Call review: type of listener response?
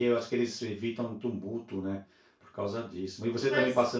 listening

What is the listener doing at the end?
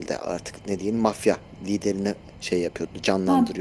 taking over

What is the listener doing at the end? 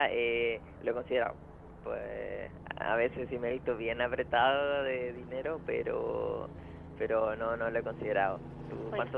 taking over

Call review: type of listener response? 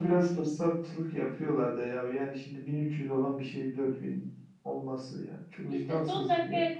taking over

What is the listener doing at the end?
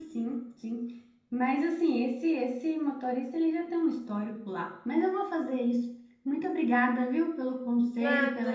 listening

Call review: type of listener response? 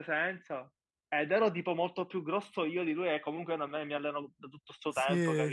taking over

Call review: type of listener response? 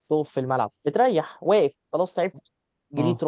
listening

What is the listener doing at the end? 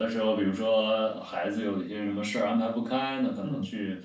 listening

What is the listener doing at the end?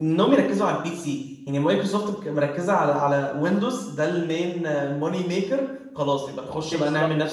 listening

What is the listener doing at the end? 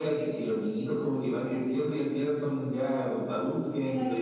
taking over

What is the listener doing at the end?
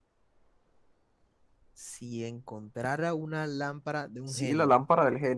taking over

